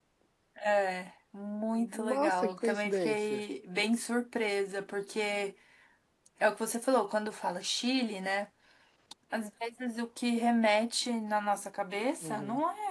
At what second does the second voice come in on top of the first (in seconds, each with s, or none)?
1.8 s